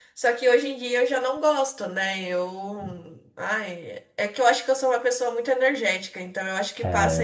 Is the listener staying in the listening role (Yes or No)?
No